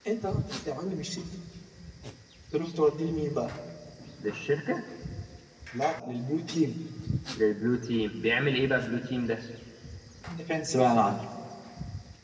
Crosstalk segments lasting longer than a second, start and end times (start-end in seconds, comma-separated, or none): none